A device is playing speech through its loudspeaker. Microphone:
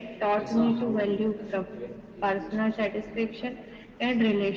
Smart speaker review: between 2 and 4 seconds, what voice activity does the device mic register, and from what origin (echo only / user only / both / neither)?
both